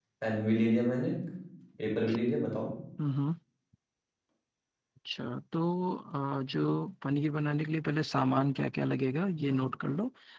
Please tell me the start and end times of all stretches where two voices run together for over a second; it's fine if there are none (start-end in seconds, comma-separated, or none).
none